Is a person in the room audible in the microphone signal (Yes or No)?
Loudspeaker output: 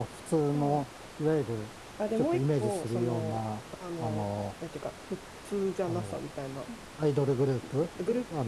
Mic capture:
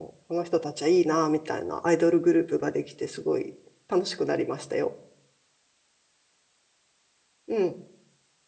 Yes